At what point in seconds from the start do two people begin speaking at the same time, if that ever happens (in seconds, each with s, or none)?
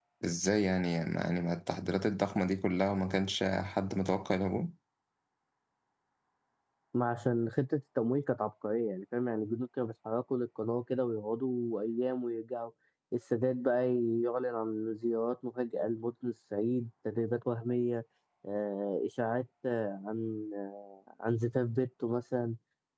none